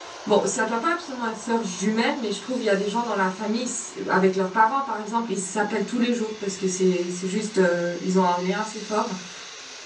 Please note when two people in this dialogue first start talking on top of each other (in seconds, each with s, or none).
none